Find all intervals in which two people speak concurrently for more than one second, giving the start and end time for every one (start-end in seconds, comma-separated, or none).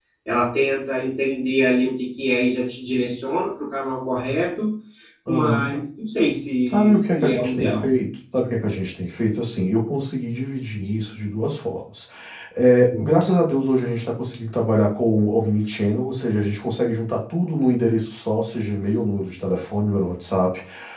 6.7-7.9